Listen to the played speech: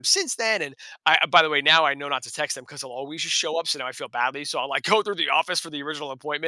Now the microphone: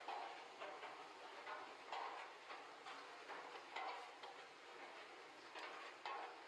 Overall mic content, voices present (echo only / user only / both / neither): neither